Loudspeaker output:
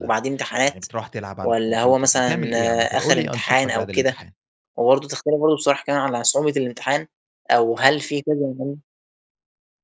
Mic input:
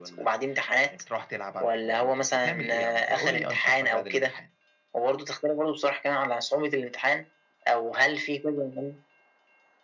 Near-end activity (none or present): none